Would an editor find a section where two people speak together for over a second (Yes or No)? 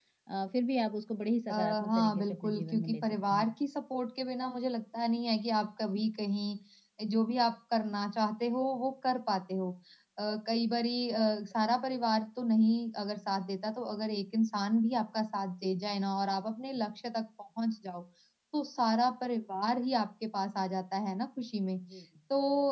Yes